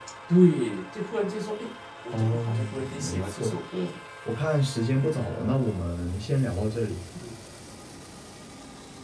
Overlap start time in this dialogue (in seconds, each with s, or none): 2.1 s